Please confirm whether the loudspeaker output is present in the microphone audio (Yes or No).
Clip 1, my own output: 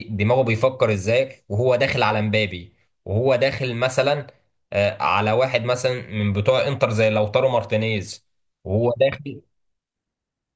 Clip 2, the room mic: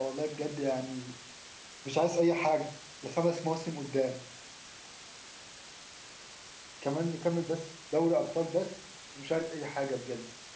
No